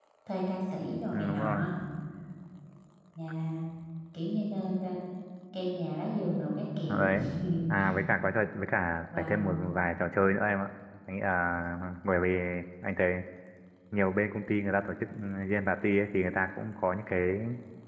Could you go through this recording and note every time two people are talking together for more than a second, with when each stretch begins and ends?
none

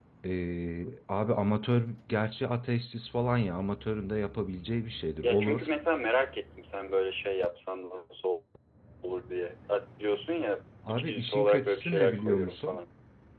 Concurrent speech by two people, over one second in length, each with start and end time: 10.9-12.8

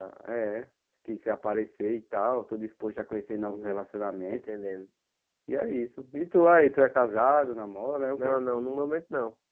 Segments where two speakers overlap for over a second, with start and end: none

